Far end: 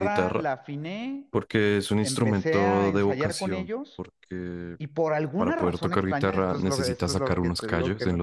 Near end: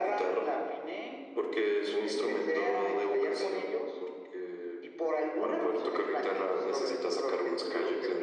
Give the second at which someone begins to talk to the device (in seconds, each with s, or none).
none